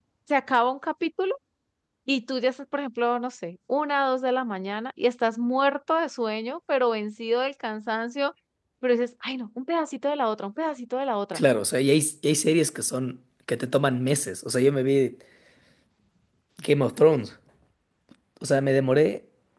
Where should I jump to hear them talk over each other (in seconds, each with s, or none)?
none